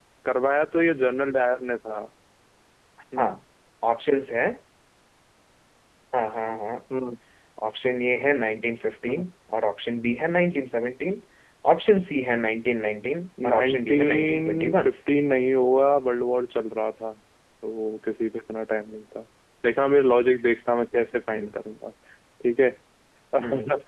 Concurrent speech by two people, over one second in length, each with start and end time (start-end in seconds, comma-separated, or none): 13.5-14.9